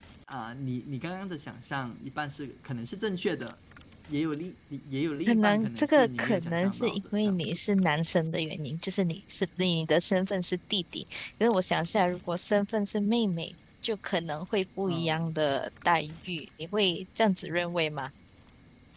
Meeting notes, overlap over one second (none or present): present